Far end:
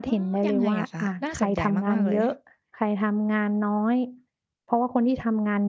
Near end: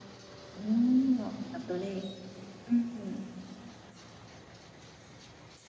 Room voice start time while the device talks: 0.5 s

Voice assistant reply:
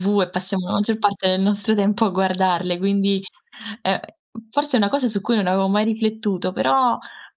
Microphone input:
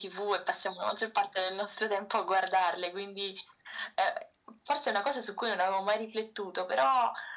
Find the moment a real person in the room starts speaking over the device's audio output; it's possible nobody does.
none

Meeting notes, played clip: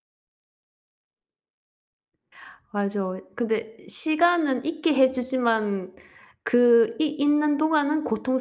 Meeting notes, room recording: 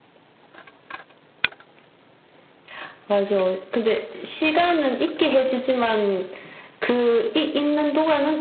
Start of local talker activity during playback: none

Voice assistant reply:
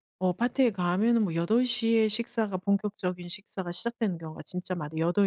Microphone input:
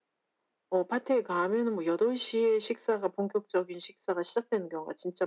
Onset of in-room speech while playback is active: none

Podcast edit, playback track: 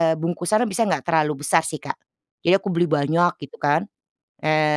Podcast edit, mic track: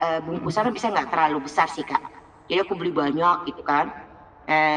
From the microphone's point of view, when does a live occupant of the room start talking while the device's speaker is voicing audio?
0.3 s

